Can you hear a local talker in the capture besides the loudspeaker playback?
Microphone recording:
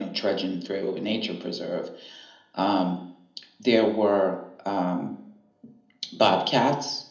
No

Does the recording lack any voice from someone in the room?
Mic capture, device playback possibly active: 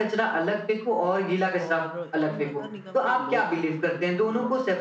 No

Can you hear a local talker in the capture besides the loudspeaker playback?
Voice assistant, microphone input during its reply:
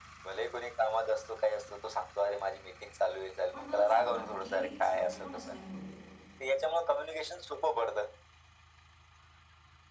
Yes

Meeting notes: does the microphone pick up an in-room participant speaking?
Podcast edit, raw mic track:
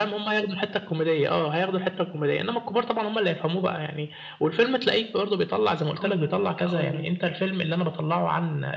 Yes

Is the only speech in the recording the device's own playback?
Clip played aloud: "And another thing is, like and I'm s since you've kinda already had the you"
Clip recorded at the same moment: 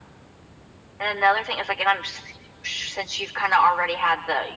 Yes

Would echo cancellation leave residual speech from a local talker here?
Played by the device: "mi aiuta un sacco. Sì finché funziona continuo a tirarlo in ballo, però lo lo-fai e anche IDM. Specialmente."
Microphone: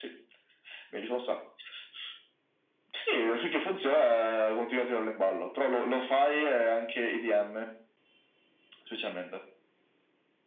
No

